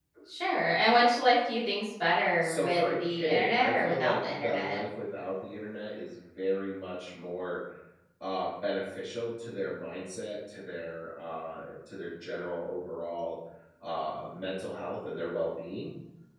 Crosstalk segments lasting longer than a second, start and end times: 2.4-4.8

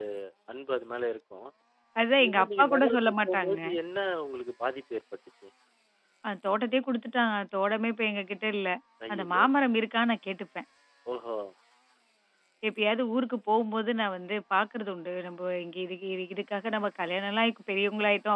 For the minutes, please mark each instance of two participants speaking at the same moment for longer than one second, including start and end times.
2.2-3.6

